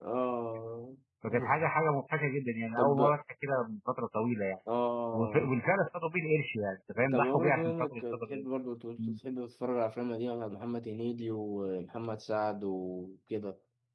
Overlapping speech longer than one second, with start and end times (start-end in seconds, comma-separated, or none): 7.1-8.4